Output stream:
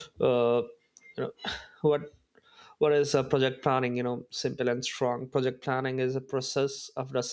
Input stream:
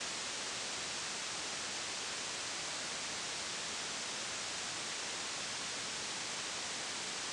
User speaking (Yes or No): No